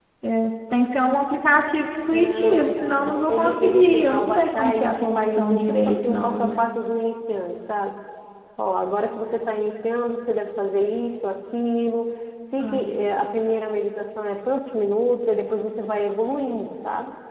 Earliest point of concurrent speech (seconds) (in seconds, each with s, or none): 2.1 s